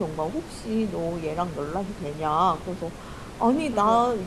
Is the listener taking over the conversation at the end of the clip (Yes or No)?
No